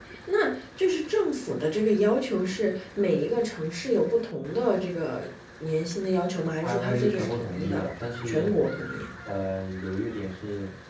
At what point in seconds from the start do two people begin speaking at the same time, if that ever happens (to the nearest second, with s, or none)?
7 s